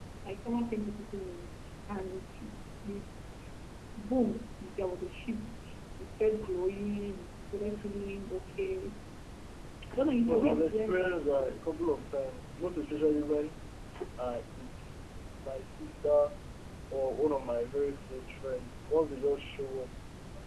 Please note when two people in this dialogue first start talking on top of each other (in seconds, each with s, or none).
10.3 s